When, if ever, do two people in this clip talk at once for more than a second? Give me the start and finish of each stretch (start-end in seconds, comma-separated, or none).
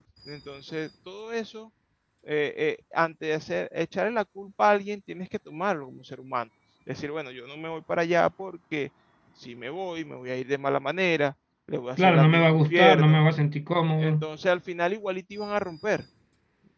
12.0-13.2